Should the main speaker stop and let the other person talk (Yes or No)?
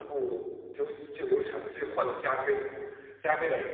No